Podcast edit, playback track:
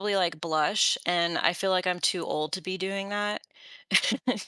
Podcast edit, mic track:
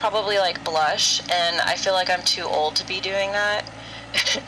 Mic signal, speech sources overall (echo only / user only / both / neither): echo only